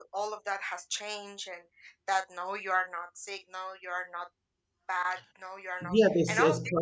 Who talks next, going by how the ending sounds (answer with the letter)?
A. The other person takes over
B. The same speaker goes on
A